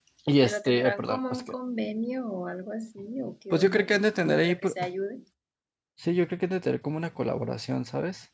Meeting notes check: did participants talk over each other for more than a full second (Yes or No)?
Yes